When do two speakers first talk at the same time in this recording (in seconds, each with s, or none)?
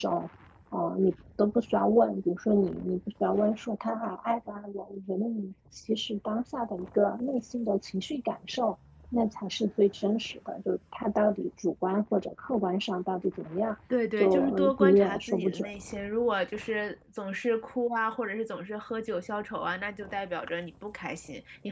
14.2 s